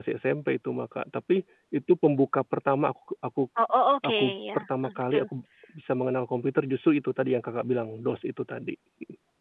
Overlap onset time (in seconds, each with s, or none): 4.0 s